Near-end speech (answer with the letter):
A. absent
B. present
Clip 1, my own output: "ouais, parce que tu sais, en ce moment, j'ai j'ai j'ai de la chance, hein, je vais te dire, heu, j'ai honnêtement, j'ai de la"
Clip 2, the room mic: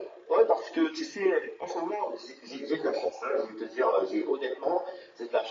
A